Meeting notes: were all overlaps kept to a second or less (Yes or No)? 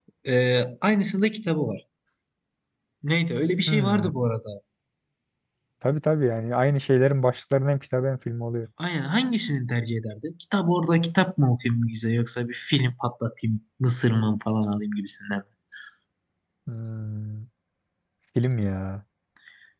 Yes